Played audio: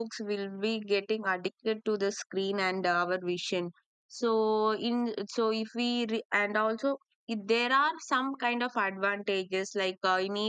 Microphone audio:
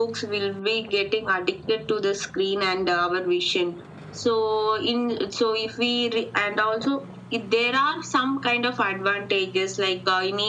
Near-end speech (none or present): none